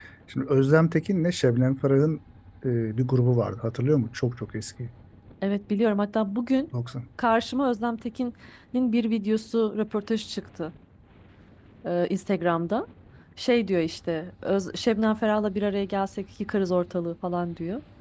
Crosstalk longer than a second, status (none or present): none